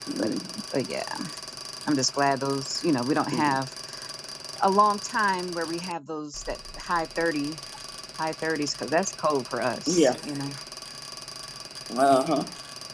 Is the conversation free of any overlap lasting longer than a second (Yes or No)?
Yes